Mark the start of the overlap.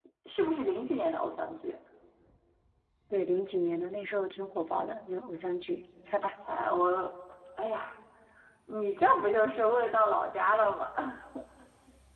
none

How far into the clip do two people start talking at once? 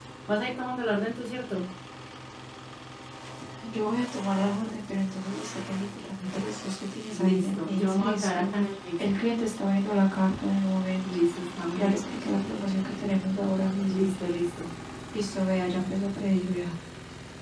7.1 s

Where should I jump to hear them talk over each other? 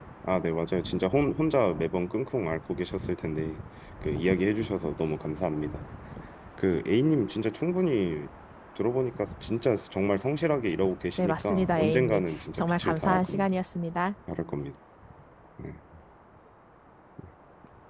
11.2 s

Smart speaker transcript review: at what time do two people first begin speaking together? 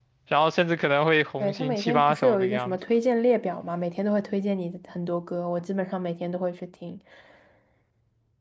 1.4 s

